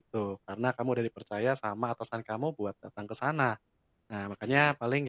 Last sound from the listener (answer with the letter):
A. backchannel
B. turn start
A